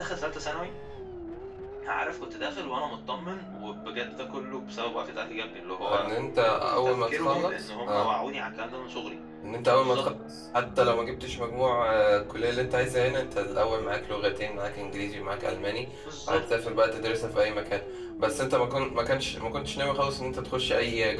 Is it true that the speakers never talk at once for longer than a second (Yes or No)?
No